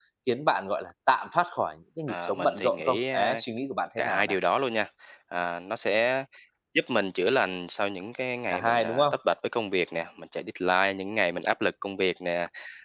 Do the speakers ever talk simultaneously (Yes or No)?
Yes